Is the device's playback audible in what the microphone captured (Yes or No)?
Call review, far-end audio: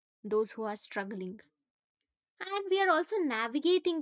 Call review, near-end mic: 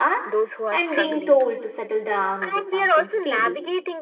Yes